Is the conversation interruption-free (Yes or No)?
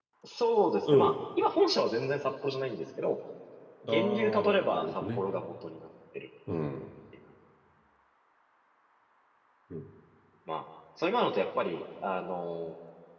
No